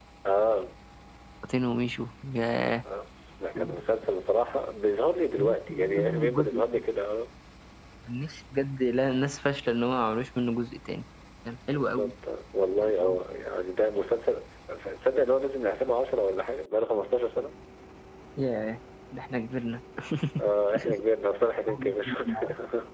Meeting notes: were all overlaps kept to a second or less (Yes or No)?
No